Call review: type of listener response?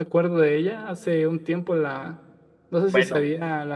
listening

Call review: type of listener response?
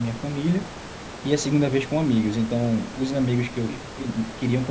listening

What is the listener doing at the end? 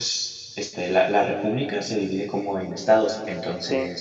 listening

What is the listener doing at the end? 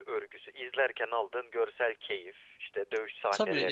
taking over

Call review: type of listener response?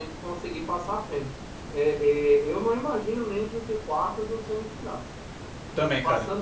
listening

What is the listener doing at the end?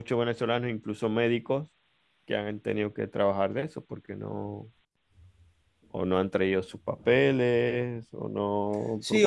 taking over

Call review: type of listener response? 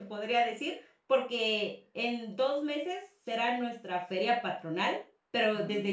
listening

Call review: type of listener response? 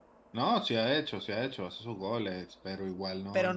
taking over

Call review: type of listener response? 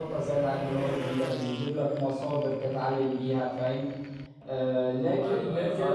taking over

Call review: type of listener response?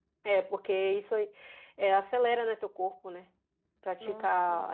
listening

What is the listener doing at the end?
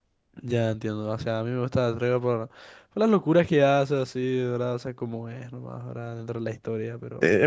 taking over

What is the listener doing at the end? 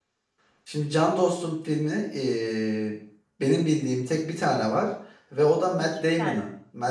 listening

